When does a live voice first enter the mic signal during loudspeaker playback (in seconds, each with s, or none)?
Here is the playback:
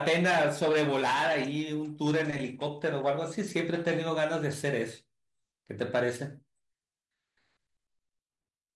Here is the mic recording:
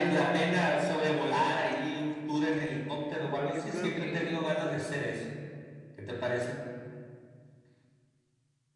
3.3 s